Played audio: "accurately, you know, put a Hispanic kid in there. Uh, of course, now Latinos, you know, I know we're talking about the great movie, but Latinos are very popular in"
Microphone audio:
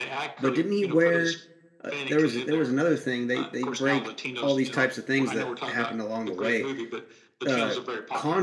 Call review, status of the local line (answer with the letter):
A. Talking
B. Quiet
A